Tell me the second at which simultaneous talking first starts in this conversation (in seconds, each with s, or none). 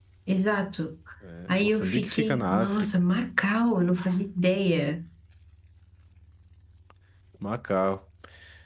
1.5 s